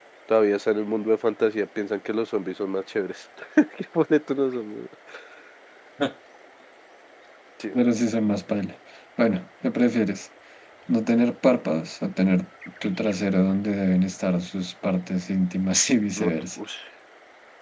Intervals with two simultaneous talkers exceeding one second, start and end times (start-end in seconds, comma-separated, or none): none